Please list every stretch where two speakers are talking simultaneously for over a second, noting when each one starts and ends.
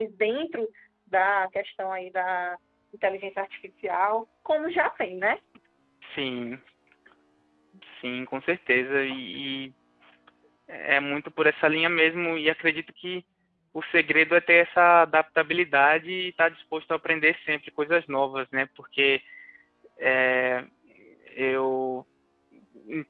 none

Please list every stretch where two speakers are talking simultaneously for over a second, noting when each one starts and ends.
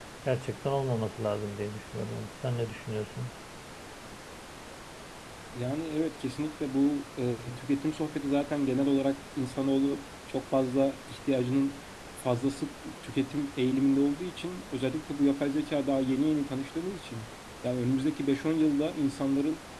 none

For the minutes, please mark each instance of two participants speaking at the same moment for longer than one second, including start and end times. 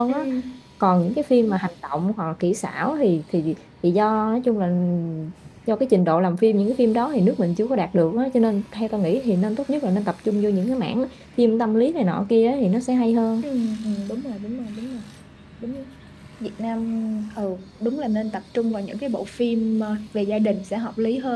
none

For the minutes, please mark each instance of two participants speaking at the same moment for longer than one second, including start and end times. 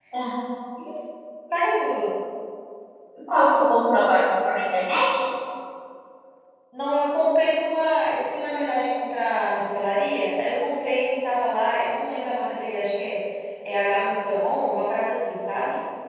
none

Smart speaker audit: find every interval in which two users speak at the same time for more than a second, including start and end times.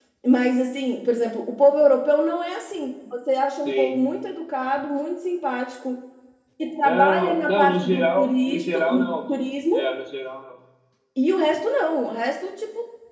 6.8-9.1

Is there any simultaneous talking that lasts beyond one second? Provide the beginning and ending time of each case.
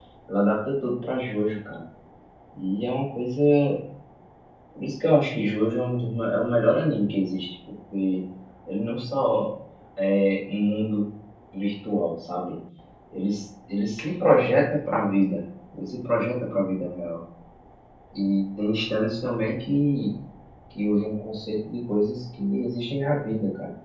none

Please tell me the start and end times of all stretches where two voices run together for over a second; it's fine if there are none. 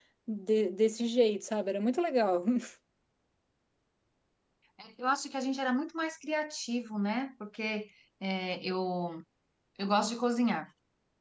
none

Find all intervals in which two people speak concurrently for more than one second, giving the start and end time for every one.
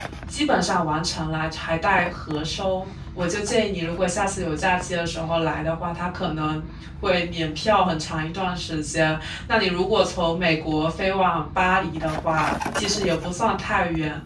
none

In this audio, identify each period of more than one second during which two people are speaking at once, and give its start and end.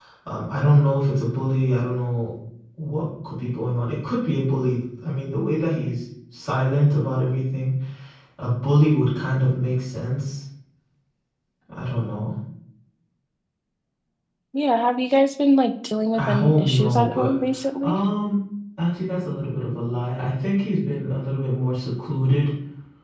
16.2-17.4

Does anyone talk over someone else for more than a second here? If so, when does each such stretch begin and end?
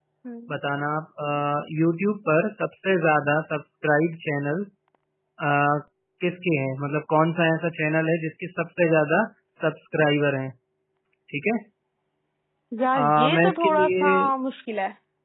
12.9-14.3

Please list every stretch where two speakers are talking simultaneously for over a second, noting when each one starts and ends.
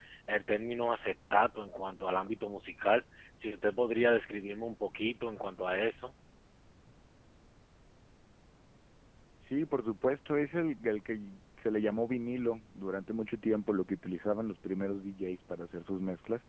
none

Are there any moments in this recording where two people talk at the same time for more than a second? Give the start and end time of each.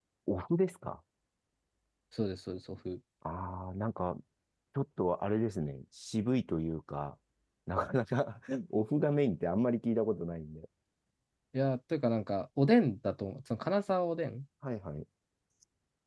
none

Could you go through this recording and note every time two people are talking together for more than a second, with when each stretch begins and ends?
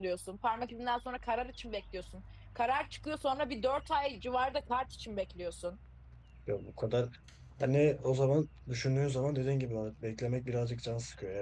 none

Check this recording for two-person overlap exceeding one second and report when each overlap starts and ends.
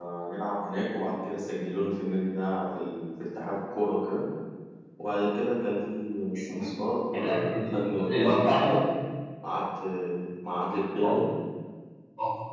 7.1-8.7

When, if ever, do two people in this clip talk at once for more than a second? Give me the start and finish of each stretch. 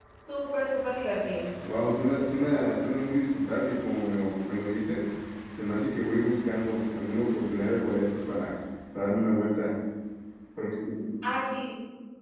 none

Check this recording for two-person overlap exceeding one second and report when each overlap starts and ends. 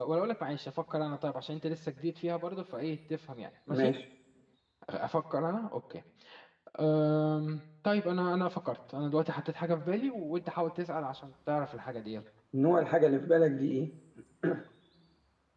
none

